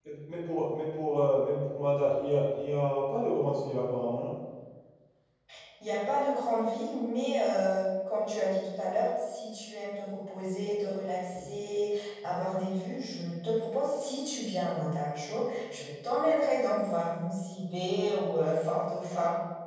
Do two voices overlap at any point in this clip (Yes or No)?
No